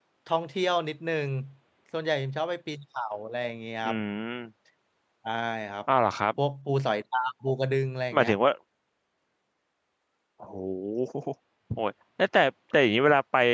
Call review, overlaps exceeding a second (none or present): none